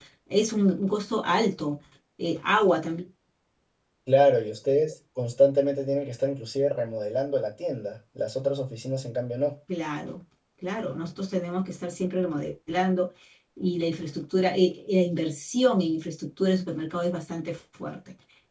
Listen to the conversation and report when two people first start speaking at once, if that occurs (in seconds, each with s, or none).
none